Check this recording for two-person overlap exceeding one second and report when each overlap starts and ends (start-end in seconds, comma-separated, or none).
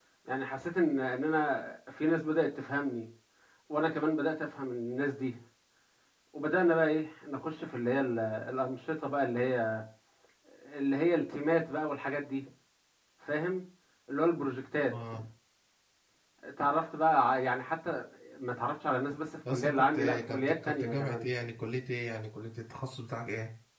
19.5-21.3